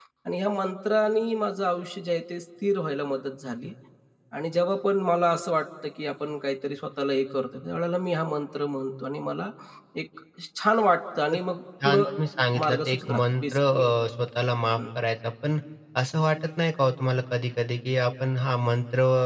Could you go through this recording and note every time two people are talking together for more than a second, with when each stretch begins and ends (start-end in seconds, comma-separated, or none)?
12.6-13.8